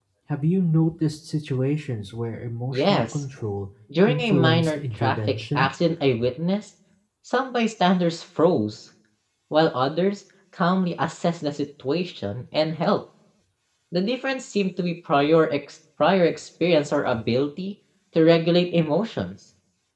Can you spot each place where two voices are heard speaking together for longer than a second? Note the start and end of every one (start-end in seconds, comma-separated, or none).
4.1-5.7